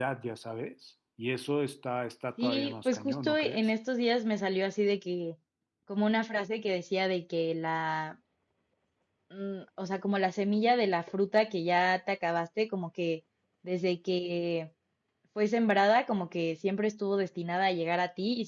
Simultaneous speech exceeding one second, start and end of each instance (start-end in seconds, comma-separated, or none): 2.4-3.7